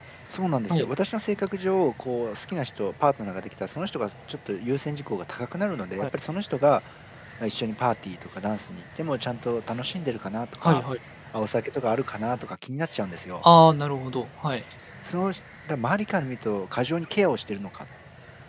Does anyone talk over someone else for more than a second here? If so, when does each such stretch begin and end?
none

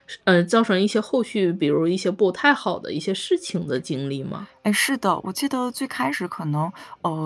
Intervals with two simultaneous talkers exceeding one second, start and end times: none

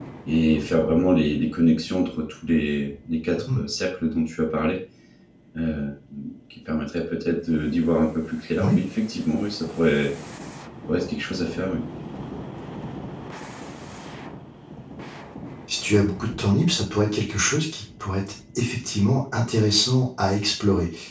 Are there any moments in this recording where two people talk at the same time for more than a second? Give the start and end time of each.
none

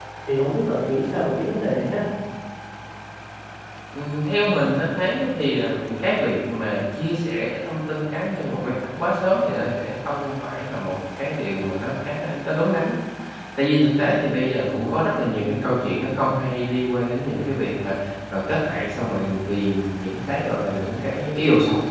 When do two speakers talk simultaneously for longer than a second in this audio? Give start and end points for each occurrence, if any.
none

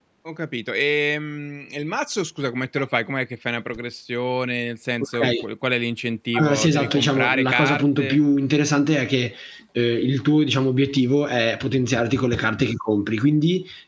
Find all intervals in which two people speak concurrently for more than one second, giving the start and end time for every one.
6.3-8.2

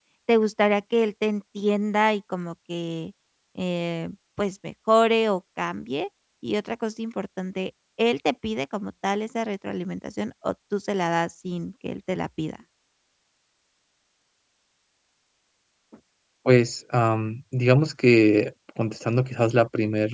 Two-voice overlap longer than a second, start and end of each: none

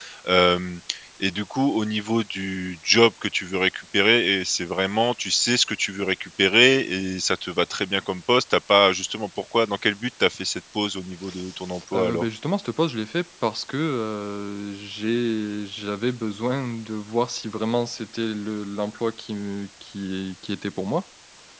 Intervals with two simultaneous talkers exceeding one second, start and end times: none

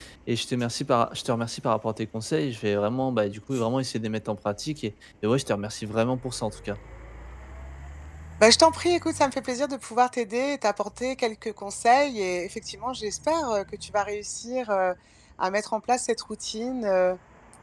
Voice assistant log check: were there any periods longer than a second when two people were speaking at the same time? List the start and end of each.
none

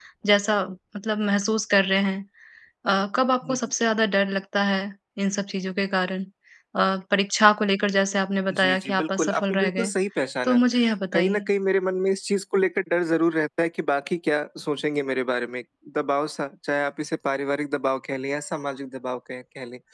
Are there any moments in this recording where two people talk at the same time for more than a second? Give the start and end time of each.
8.5-9.9

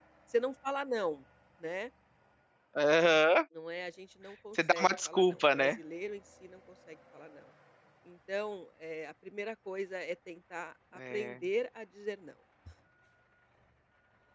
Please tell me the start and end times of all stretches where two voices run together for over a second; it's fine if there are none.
4.6-5.8

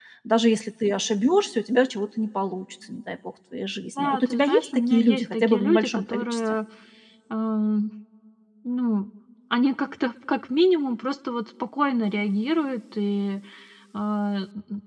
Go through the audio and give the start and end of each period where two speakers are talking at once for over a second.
4.0-6.4

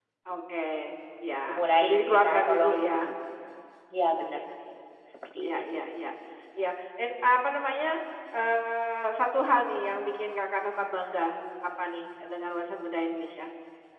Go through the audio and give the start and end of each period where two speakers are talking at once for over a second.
1.5-3.1

